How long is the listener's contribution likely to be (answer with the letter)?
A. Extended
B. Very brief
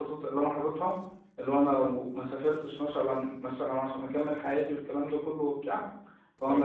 B